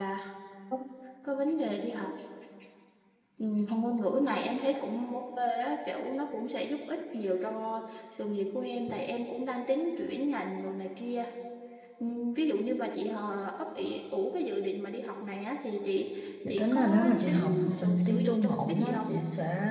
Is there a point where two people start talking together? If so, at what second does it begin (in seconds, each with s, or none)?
16.5 s